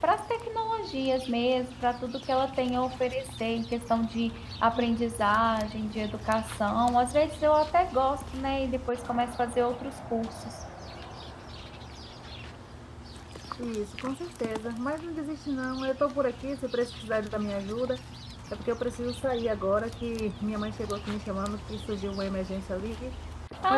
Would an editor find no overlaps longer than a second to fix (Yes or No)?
Yes